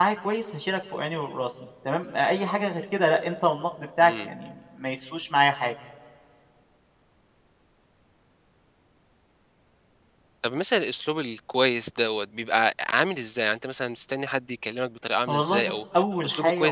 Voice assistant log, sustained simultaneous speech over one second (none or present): none